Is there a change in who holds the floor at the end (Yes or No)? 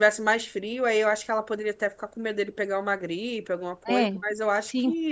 Yes